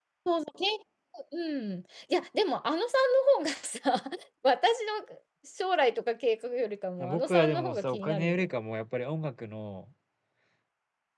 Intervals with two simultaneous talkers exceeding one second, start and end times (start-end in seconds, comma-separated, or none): 7.1-8.5